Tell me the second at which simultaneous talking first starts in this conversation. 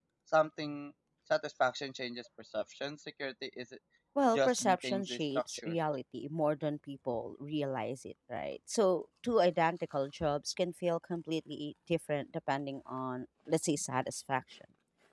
4.3 s

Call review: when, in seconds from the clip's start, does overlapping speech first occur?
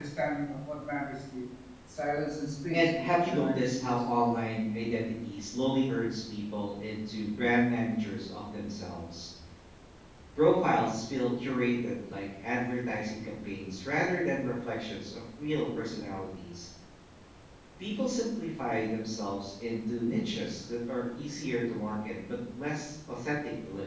2.7 s

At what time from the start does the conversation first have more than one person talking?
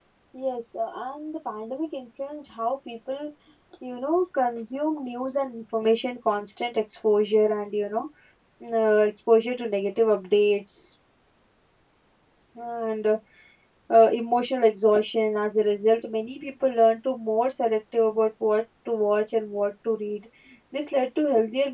none

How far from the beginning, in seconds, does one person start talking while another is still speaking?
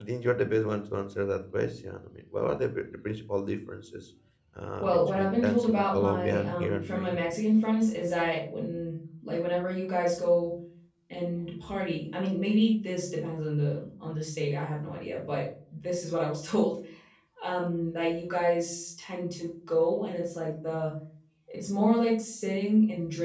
4.8 s

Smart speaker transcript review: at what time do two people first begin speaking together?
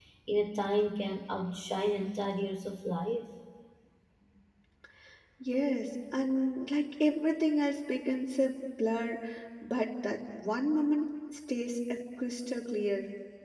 none

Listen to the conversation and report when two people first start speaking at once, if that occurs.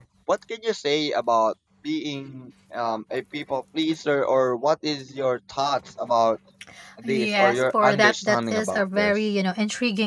7.1 s

